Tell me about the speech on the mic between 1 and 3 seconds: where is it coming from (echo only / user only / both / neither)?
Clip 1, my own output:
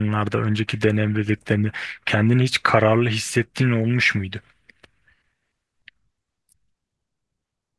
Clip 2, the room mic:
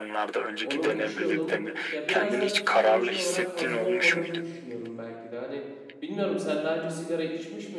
both